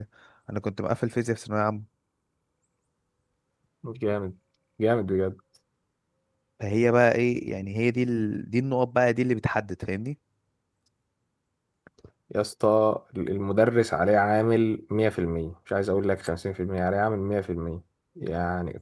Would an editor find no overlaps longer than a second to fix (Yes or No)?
Yes